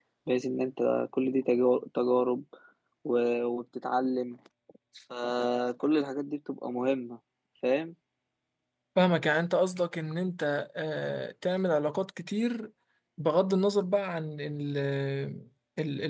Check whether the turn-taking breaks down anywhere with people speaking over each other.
No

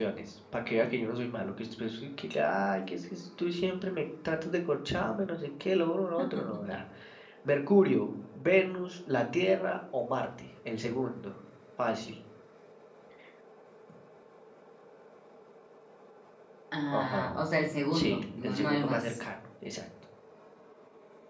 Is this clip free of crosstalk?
No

